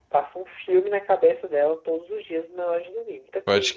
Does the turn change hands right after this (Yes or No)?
Yes